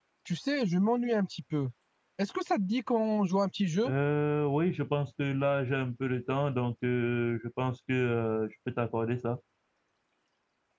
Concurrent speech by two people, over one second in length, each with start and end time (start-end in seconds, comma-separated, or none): none